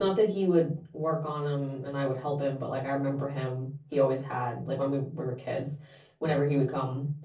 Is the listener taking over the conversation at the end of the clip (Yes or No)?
No